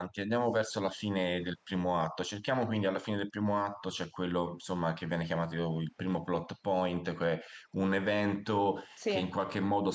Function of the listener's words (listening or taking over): listening